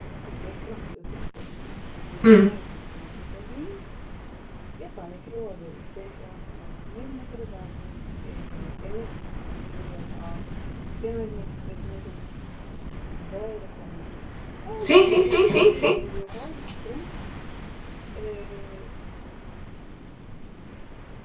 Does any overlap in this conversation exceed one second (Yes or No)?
Yes